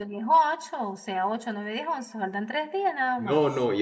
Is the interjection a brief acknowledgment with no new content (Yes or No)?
No